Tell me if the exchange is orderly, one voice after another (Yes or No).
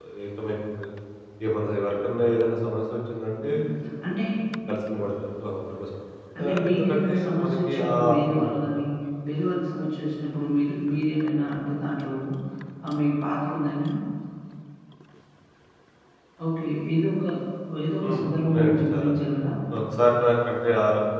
No